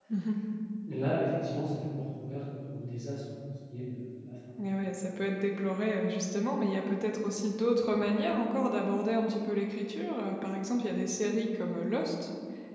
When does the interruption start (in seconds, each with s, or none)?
none